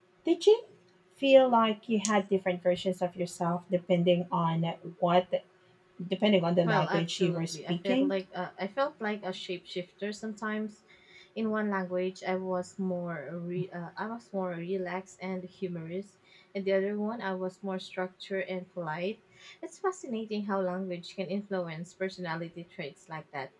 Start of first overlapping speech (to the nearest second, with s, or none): 7 s